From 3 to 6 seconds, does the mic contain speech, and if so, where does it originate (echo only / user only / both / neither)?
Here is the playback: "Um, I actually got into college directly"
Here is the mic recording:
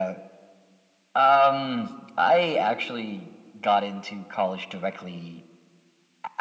echo only